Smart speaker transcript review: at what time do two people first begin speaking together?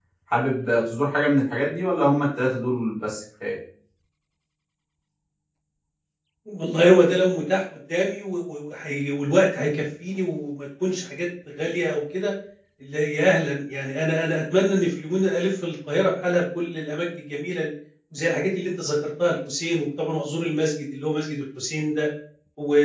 none

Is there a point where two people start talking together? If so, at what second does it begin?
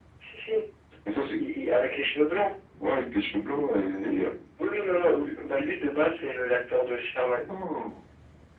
none

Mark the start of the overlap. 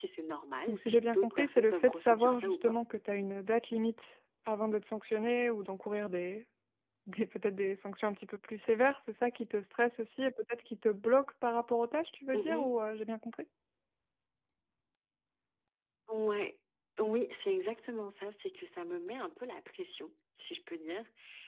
0.7 s

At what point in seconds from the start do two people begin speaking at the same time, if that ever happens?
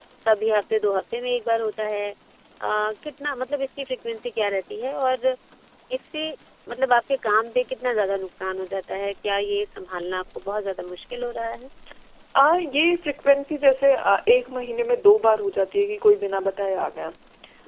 none

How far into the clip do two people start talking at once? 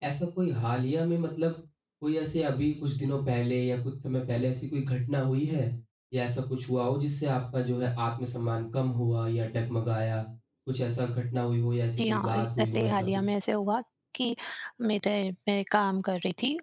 12.0 s

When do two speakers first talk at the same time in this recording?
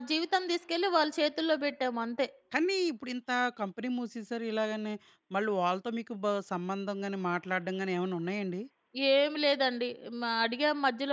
none

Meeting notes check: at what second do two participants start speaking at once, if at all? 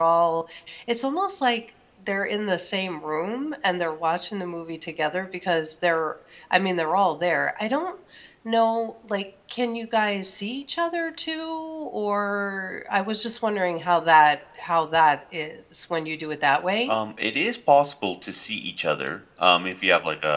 none

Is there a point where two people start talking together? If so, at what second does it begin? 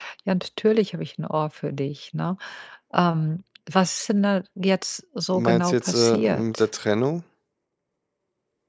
5.3 s

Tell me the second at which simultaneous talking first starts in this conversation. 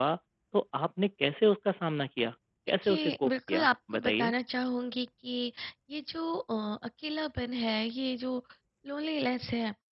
2.8 s

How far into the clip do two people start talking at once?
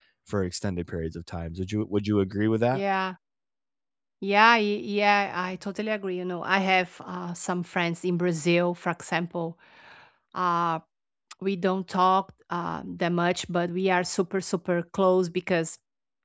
none

